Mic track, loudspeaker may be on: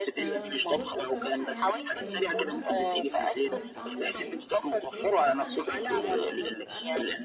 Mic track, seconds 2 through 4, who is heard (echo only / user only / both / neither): both